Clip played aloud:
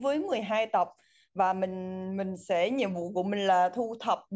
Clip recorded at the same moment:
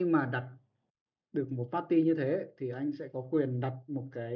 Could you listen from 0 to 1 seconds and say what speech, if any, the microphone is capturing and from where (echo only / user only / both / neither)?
user only